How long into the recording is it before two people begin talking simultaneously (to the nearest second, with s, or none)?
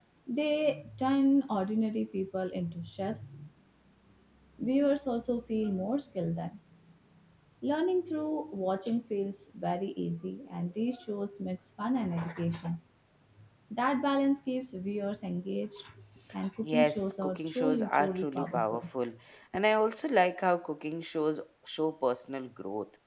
17 s